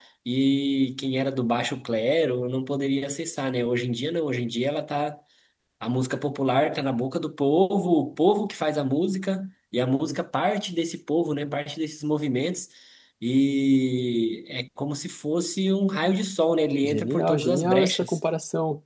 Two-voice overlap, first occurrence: 16.8 s

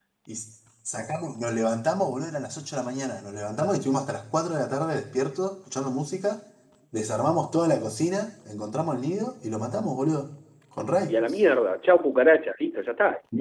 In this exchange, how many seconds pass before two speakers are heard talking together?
none

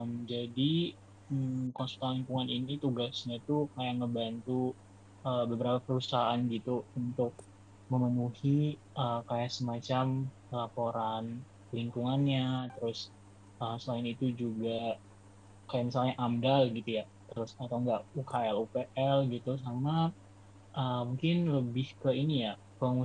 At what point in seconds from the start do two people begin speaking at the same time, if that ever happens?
none

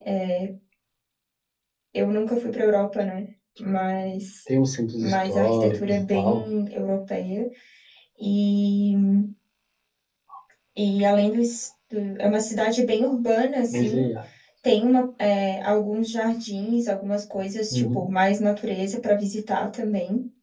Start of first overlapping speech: 5.0 s

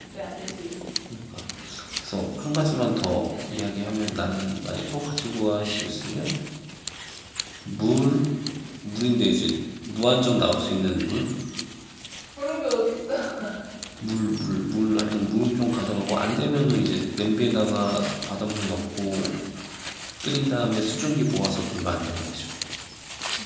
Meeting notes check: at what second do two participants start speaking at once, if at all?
none

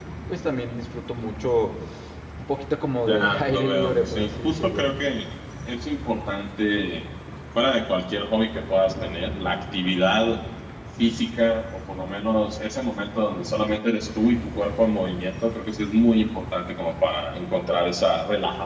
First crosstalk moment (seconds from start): 3.1 s

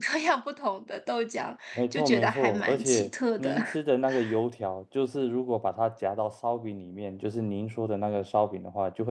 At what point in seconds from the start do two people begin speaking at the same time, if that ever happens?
1.8 s

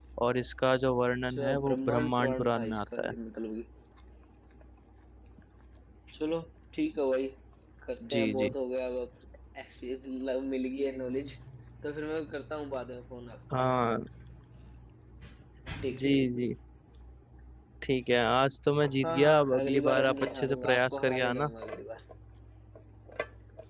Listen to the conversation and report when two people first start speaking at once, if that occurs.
1.3 s

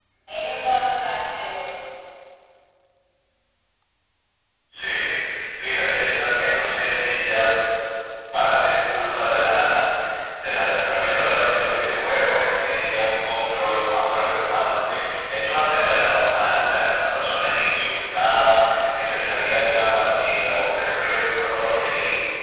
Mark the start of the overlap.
none

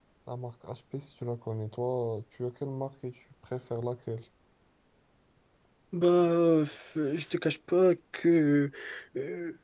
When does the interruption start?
none

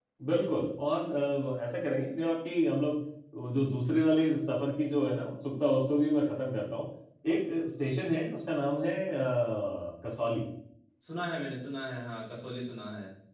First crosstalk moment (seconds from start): none

